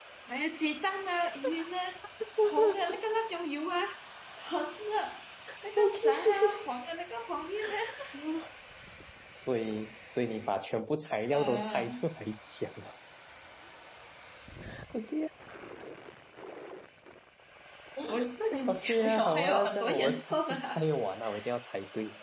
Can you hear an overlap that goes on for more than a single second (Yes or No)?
Yes